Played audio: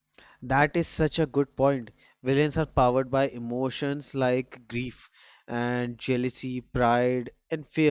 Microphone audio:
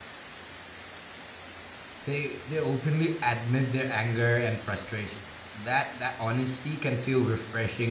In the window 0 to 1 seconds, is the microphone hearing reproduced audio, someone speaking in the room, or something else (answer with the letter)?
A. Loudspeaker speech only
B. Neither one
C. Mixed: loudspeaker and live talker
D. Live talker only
B